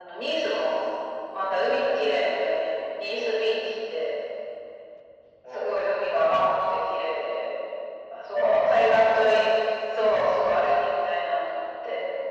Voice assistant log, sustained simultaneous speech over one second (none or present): present